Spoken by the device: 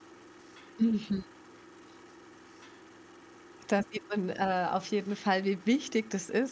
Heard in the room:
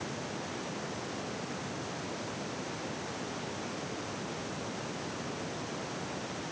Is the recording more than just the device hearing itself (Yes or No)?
No